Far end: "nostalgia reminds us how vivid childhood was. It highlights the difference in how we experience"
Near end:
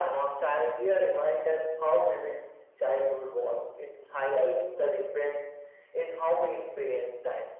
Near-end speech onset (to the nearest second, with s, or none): none